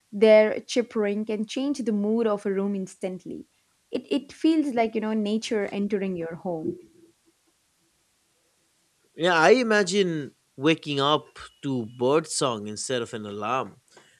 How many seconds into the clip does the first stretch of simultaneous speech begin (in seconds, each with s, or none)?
none